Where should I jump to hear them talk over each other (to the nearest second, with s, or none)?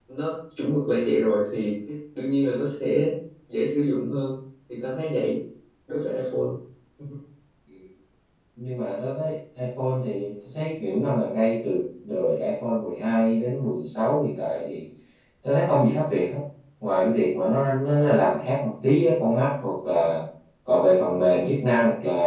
none